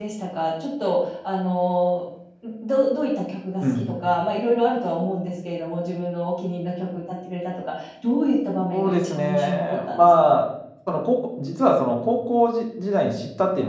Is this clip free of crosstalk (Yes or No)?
No